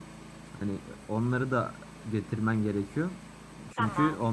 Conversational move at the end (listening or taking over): listening